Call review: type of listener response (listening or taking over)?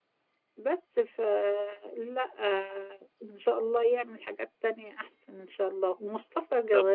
listening